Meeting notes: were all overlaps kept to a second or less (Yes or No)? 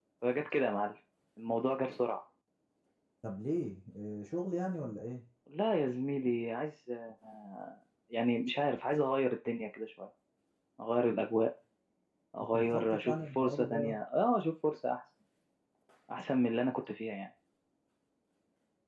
No